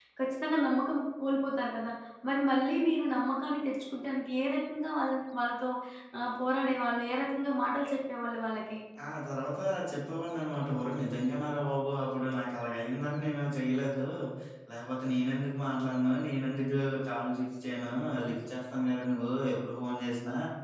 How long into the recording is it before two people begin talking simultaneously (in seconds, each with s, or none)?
none